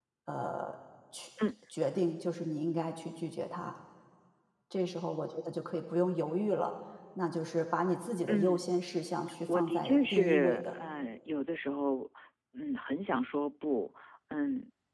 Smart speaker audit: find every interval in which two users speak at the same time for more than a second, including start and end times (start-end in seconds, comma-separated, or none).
9.5-10.7